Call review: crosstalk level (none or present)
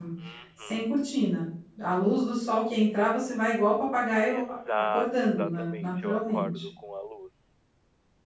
present